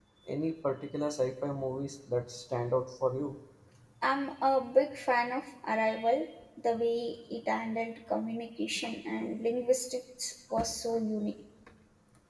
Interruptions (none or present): none